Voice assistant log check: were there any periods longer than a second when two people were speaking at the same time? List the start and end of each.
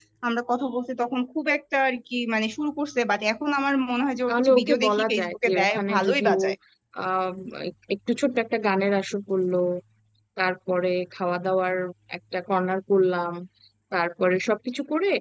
4.3-6.4

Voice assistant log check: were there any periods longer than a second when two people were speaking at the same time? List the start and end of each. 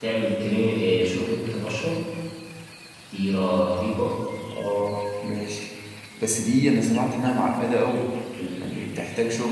none

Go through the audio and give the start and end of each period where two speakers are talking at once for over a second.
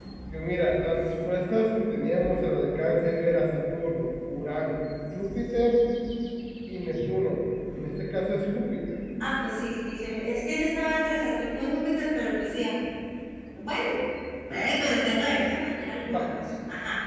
none

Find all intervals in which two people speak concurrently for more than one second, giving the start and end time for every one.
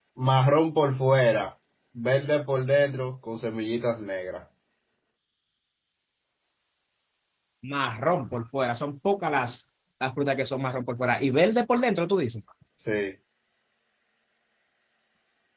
none

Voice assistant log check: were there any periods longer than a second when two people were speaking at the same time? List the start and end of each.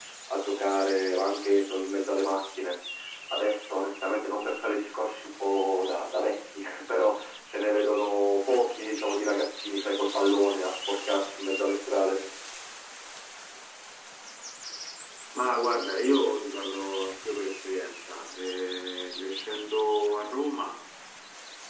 none

